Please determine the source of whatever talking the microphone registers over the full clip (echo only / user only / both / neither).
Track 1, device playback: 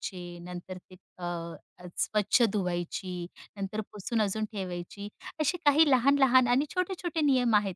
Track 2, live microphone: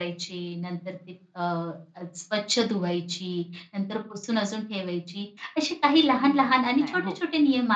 both